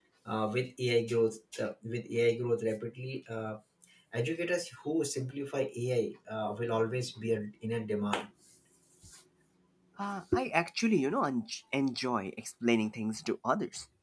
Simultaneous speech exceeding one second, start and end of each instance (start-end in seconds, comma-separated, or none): none